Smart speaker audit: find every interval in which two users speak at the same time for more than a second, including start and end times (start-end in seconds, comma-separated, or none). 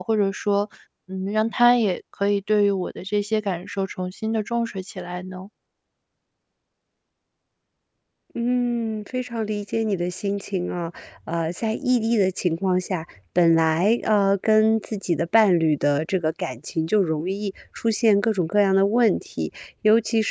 none